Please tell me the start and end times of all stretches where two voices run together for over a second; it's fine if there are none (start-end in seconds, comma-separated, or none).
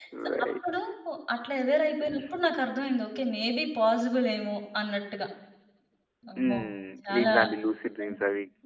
none